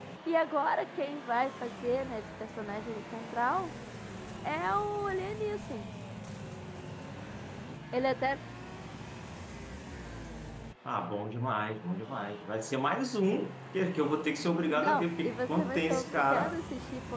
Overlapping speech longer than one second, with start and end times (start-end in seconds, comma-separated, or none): 14.8-16.6